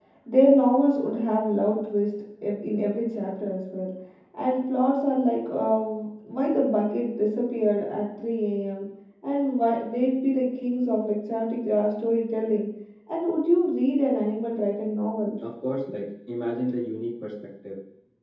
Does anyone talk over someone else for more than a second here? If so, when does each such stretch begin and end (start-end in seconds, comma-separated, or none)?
none